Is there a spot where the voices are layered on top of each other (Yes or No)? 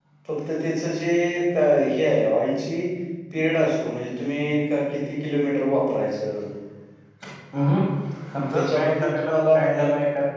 Yes